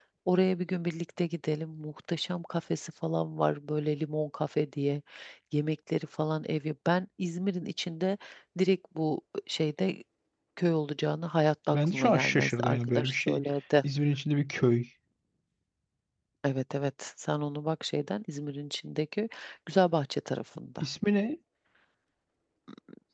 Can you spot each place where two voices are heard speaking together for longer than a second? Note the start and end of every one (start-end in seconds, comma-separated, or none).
11.7-13.4